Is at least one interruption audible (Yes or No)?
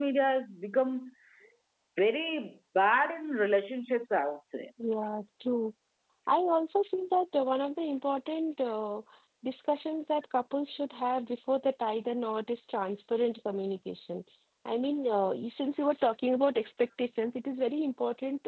No